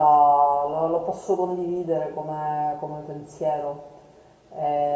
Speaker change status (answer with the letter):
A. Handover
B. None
B